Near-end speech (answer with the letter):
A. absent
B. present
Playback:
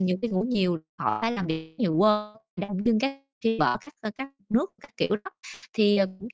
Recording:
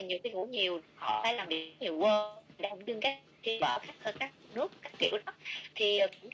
A